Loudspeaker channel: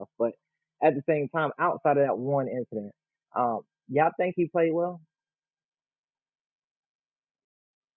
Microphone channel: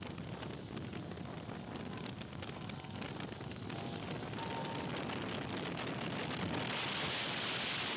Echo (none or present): none